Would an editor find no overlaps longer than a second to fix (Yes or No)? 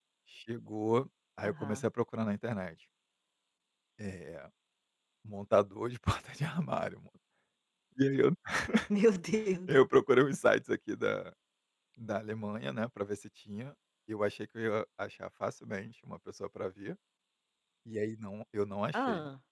Yes